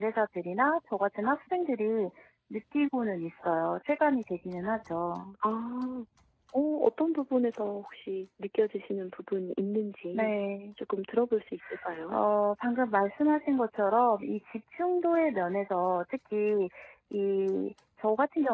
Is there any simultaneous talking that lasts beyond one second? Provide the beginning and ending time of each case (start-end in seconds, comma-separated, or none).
none